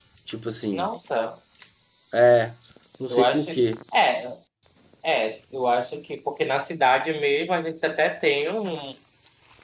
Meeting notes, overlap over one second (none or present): none